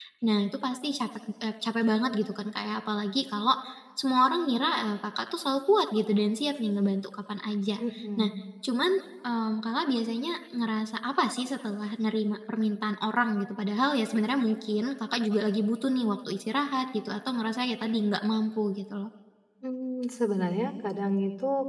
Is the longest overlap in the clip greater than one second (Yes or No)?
No